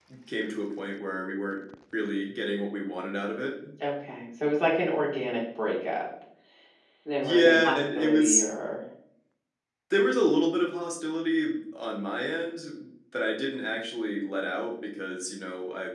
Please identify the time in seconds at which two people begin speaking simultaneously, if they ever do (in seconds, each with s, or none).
7.2 s